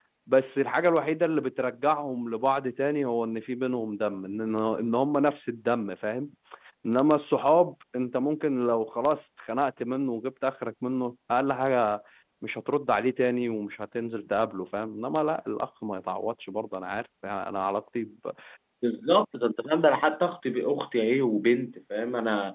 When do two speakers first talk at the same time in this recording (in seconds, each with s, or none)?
none